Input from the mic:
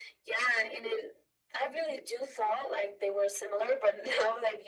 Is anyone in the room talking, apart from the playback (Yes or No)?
No